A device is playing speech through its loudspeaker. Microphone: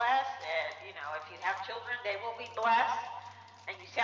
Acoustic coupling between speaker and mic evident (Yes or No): Yes